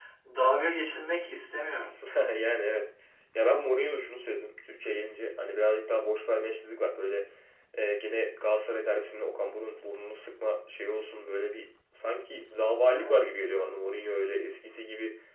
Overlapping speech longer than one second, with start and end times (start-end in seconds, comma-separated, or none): none